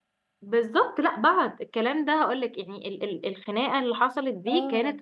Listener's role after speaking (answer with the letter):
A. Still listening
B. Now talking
A